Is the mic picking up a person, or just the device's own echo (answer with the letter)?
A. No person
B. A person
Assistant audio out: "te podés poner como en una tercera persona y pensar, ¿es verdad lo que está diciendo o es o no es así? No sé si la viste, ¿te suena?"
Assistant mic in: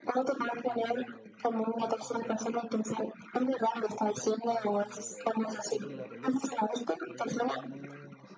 B